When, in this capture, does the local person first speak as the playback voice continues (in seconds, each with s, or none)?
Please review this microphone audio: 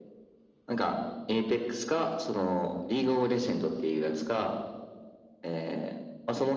none